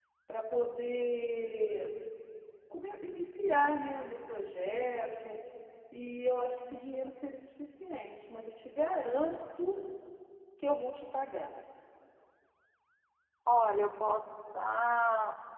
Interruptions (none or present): none